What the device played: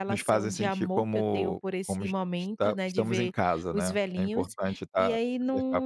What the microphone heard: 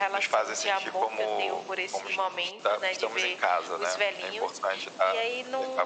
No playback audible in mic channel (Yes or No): No